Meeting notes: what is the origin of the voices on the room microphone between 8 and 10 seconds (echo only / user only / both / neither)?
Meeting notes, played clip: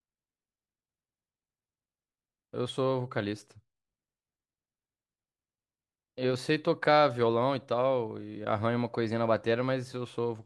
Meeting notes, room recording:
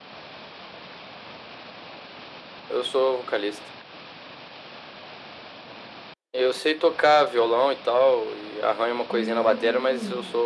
both